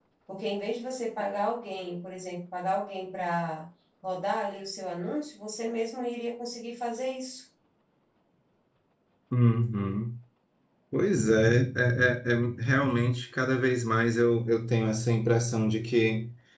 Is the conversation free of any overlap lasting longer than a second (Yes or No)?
Yes